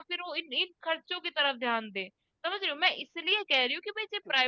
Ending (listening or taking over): listening